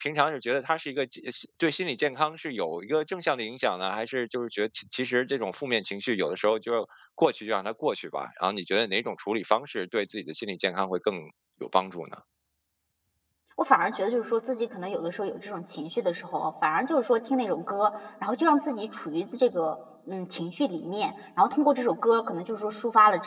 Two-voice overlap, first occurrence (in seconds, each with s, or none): none